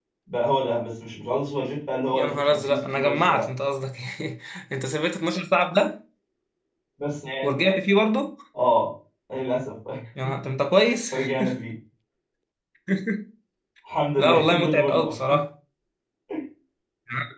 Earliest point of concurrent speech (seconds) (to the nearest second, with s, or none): 2 s